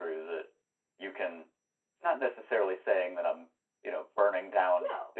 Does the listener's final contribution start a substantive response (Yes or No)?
No